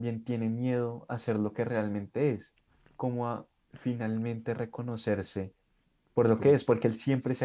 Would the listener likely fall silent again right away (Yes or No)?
Yes